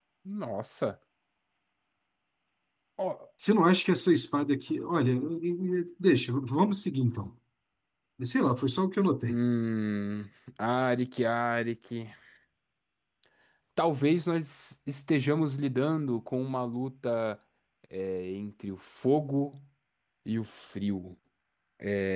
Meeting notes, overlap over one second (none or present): none